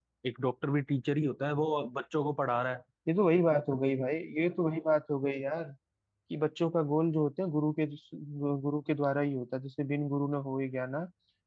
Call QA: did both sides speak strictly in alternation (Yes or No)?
Yes